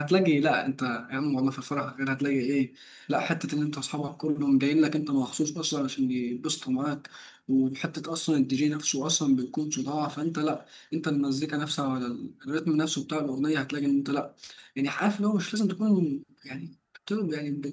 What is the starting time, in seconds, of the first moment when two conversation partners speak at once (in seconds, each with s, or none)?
none